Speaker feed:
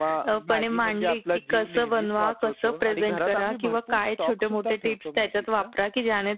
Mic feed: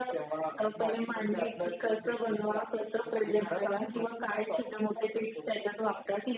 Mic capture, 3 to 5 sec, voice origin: echo only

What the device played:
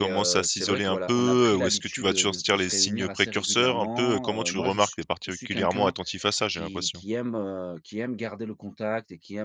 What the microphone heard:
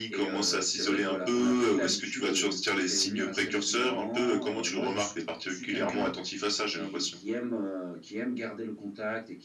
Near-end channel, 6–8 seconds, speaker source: echo only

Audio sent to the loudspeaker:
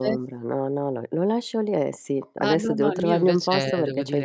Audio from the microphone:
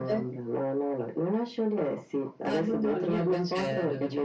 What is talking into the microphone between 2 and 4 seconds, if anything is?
echo only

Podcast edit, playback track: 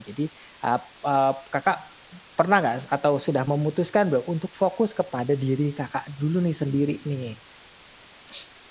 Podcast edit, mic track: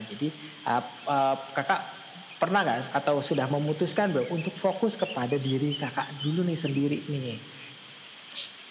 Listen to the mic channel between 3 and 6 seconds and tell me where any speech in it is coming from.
echo only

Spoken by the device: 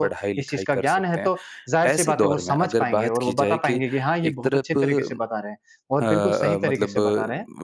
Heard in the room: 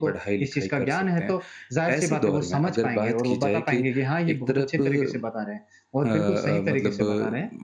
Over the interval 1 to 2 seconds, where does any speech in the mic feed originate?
echo only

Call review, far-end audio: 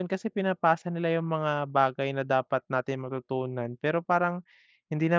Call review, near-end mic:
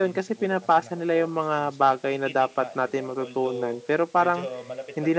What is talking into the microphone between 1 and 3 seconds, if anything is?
both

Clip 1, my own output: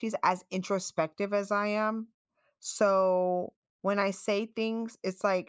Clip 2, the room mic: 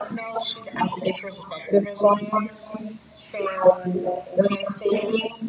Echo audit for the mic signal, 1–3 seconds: echo only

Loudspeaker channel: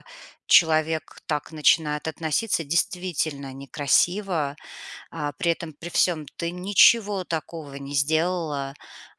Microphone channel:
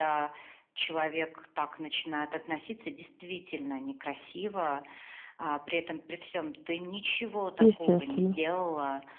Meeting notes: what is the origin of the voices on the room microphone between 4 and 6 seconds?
echo only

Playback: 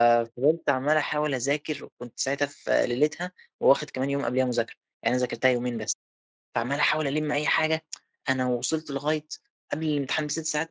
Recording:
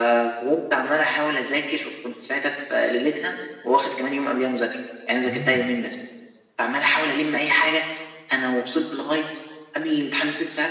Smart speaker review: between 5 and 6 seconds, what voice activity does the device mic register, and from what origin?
both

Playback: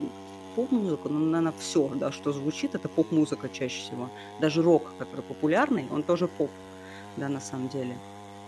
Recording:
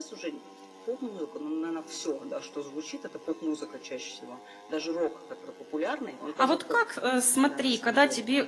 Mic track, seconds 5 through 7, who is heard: both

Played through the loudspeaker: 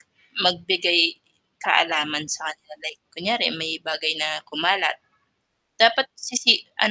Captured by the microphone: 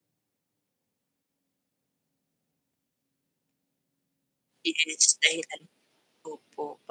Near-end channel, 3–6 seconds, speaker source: user only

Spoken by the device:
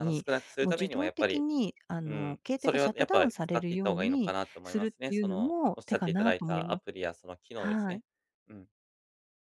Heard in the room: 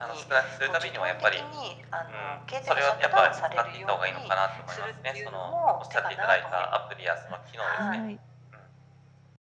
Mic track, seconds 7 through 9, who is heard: both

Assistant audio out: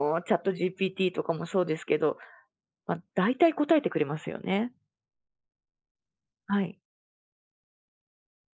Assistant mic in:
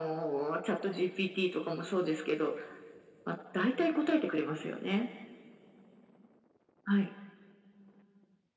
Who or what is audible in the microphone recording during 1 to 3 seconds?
echo only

